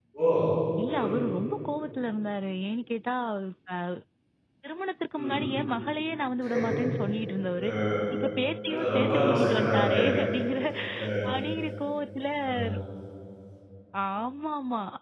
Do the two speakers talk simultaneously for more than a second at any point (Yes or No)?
Yes